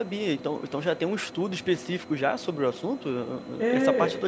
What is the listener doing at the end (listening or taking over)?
taking over